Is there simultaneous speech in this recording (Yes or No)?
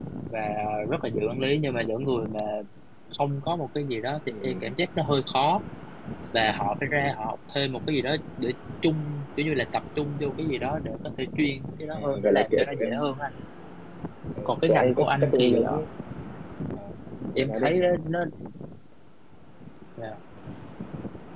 Yes